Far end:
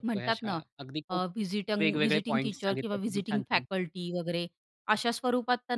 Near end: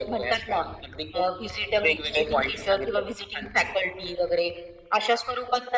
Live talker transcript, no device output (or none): none